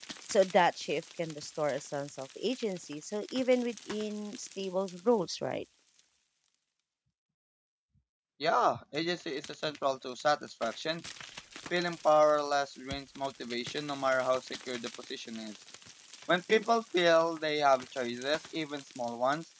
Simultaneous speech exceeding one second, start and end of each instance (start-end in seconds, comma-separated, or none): none